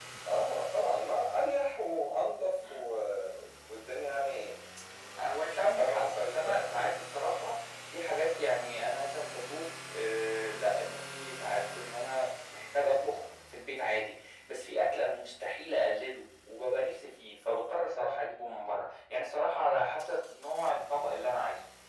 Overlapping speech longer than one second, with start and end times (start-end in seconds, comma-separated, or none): 5.4-6.9